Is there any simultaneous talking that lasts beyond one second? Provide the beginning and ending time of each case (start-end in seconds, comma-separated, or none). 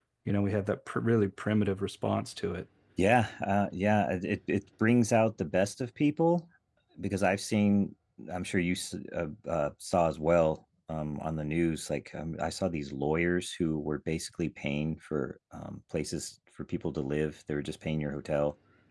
none